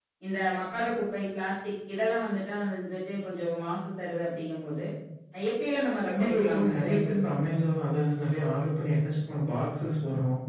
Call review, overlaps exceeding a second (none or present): present